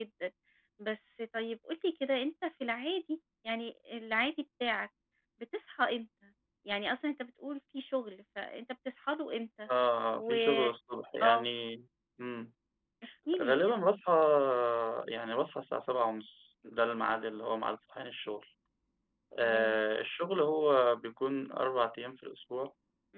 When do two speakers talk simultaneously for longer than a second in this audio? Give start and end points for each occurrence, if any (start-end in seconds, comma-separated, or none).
none